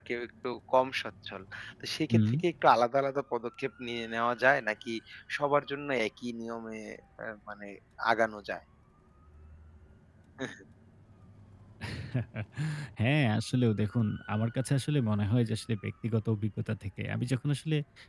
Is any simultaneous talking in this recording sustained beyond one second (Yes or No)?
No